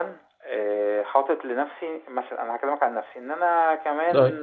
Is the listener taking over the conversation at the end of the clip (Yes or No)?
No